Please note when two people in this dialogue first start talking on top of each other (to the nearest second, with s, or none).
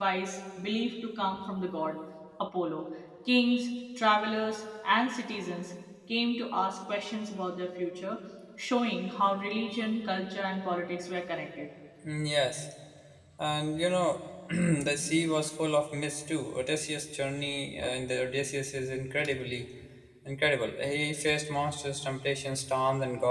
none